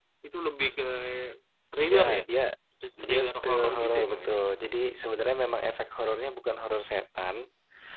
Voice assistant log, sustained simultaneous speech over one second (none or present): present